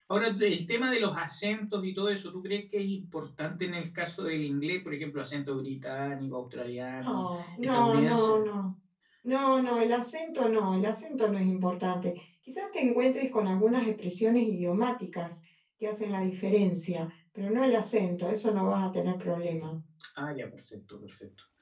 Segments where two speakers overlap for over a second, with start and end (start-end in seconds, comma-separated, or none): 7.0-8.4